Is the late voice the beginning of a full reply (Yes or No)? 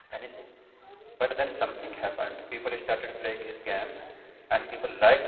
No